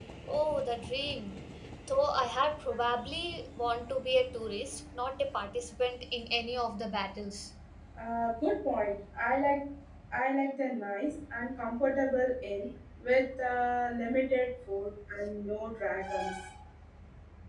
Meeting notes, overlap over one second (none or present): none